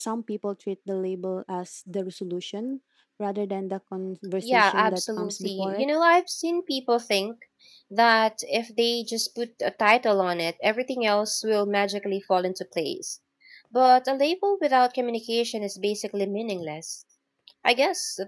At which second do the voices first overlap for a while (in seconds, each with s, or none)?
4.4 s